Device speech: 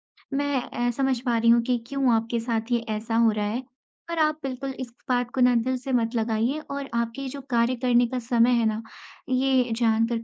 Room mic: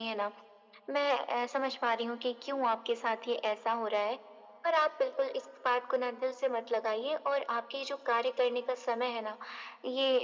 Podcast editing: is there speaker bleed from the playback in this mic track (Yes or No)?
Yes